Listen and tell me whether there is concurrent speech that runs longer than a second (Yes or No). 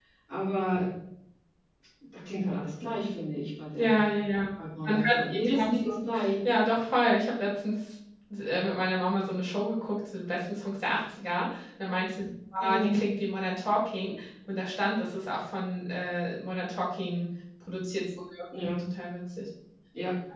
Yes